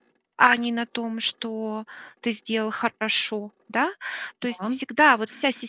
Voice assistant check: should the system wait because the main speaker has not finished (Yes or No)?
Yes